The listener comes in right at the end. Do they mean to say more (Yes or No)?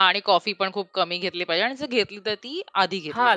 Yes